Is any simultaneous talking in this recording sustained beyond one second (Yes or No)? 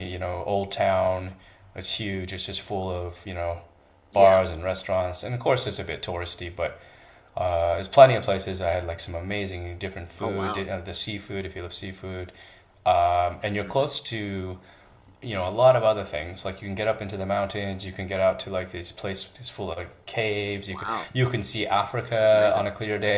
No